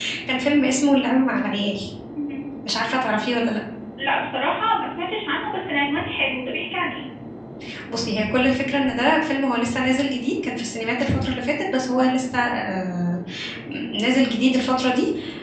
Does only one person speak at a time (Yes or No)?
Yes